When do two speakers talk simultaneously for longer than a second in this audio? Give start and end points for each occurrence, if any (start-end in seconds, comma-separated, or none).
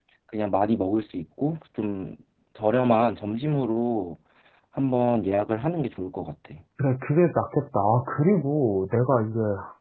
none